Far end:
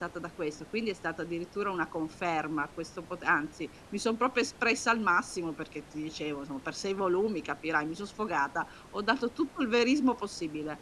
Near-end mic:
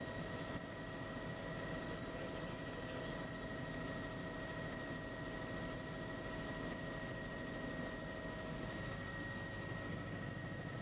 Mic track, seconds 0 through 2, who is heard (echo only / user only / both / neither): neither